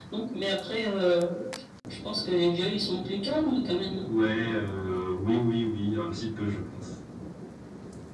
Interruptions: none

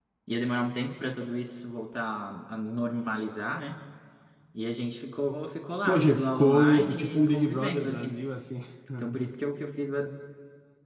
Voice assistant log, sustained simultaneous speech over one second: present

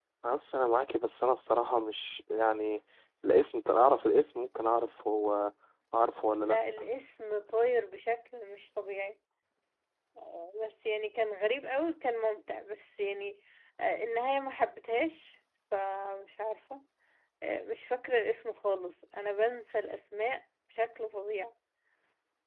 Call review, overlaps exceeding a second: none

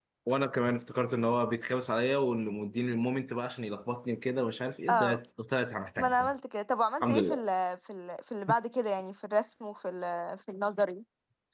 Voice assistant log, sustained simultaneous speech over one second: none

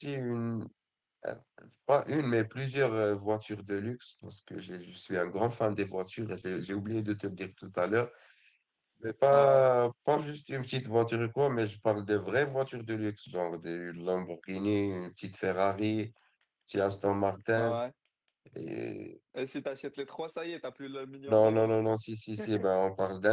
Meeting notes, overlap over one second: none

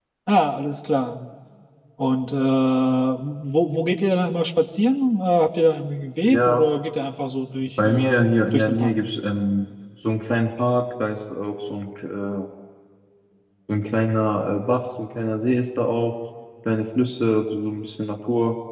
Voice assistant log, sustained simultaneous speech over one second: none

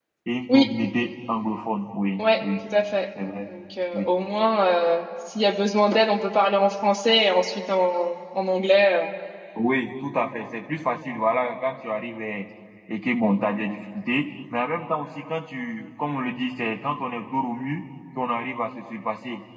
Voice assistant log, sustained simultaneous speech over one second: none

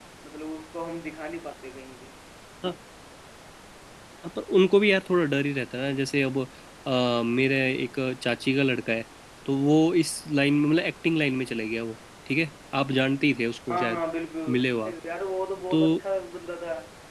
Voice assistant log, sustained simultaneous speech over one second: none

